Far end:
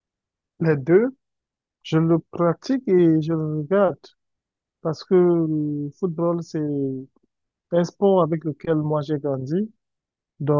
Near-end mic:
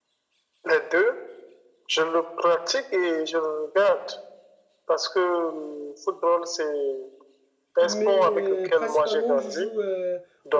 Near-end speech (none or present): present